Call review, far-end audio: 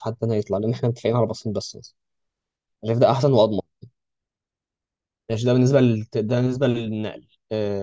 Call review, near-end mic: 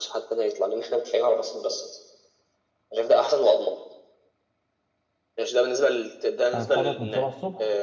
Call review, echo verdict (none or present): present